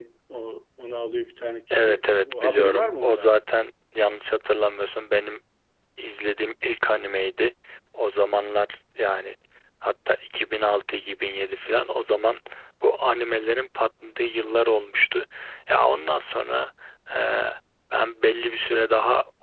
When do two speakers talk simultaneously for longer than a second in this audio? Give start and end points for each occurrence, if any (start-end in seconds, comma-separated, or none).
1.7-3.3